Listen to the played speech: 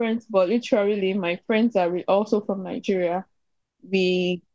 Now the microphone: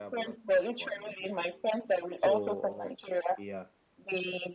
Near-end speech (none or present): present